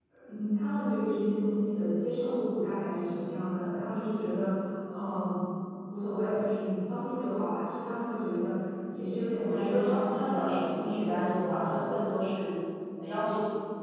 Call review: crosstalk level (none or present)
present